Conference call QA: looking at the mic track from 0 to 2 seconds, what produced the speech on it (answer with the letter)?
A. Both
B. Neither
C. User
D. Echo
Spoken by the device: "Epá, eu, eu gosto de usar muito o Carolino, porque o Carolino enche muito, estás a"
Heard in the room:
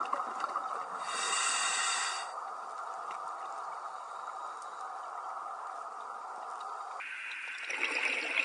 B